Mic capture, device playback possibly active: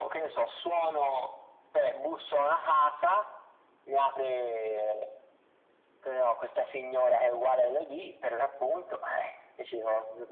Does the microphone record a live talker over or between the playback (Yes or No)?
No